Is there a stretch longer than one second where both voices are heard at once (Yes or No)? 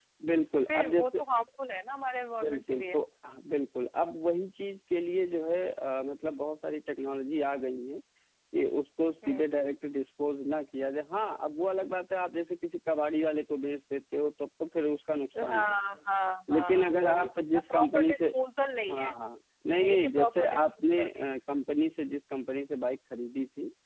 Yes